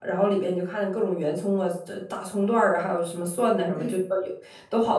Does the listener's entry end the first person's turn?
No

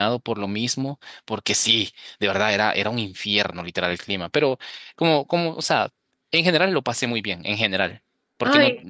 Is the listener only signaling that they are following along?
Yes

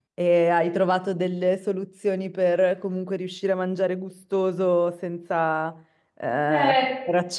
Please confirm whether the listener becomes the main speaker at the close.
No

